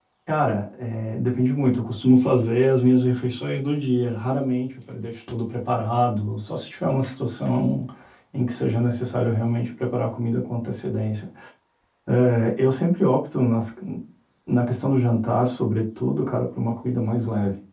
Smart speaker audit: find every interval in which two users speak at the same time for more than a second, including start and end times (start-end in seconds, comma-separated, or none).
none